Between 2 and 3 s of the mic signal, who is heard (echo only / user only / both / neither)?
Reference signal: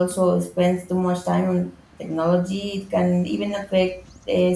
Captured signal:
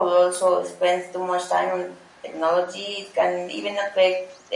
echo only